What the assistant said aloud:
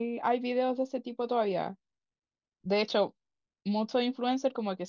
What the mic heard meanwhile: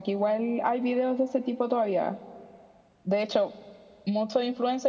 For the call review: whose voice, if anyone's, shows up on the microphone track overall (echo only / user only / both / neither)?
echo only